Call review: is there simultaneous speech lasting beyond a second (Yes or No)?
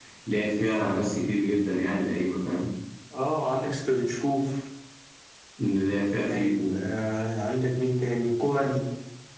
No